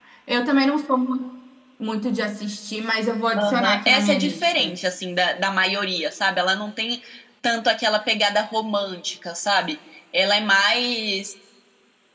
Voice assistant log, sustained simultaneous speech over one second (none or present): present